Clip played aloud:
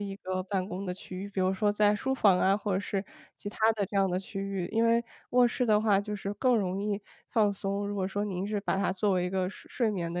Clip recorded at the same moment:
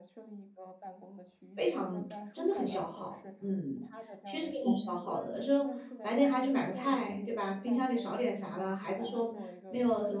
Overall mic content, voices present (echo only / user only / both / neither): both